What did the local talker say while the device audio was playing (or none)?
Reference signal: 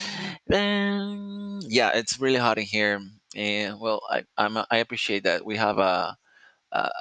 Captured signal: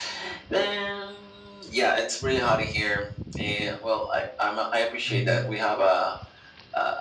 mhm,